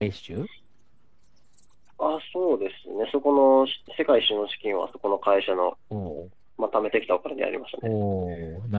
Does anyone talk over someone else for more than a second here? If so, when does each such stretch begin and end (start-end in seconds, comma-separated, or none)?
none